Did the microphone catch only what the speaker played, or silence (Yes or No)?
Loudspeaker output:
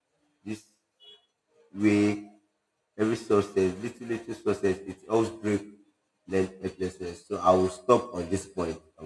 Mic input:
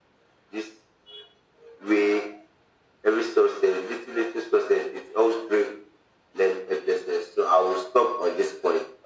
Yes